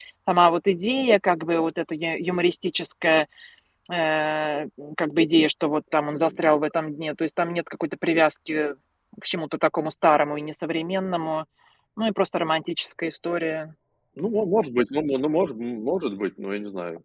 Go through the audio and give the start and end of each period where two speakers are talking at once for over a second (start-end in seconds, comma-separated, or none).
none